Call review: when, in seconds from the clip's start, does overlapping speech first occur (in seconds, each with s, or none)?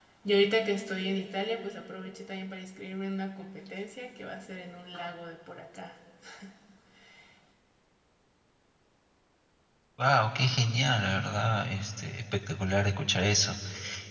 none